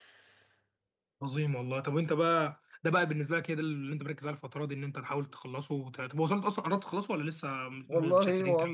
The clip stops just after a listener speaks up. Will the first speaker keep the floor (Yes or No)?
No